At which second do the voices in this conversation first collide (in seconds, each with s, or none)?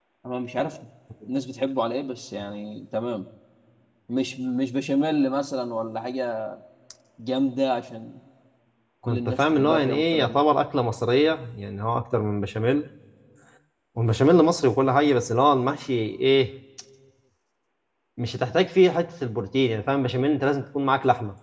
9.1 s